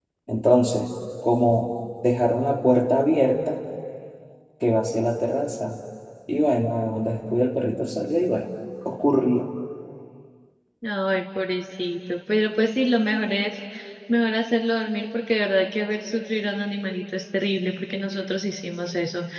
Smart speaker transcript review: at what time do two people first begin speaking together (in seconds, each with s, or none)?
none